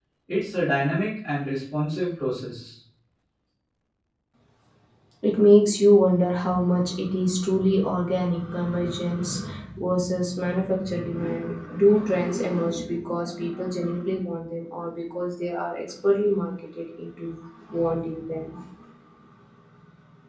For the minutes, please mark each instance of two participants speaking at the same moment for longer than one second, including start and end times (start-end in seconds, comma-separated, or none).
none